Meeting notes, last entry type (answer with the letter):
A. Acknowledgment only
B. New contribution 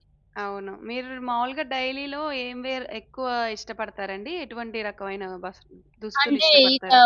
B